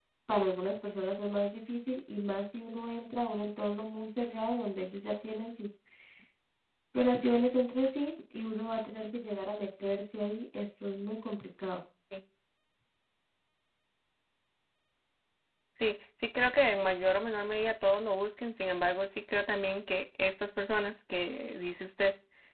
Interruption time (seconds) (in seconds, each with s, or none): none